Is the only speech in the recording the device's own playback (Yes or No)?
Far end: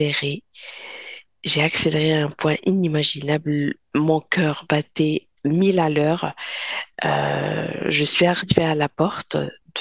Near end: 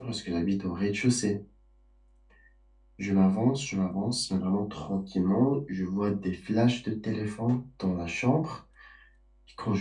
No